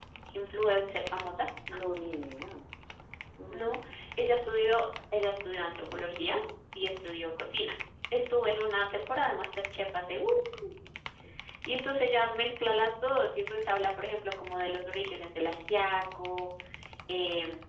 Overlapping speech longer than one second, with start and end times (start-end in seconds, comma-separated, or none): none